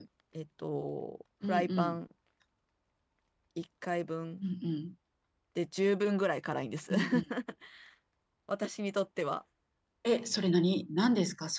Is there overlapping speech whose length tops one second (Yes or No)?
No